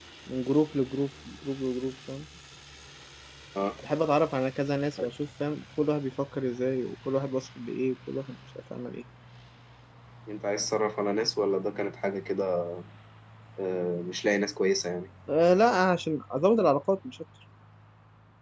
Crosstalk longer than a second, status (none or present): none